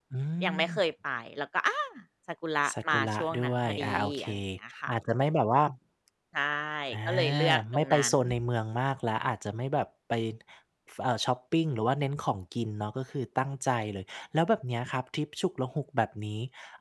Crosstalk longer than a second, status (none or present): present